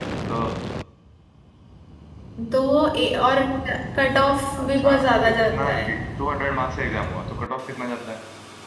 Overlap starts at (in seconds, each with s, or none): 4.6 s